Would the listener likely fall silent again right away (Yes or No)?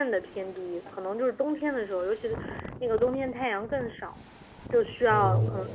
Yes